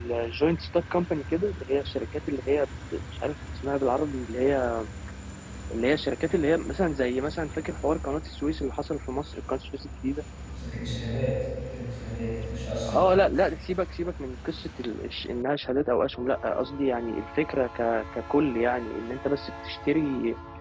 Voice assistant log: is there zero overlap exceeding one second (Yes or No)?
Yes